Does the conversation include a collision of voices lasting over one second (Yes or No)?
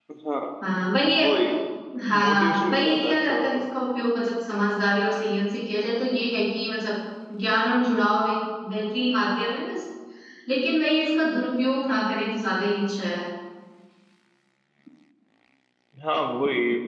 Yes